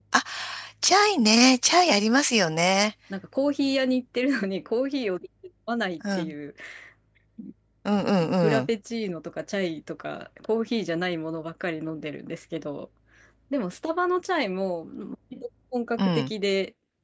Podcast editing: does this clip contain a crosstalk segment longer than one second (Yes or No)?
No